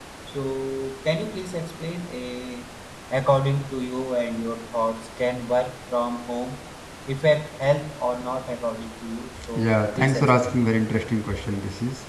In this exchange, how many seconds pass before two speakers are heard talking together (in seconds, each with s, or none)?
9.4 s